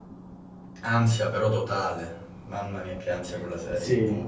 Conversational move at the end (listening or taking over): taking over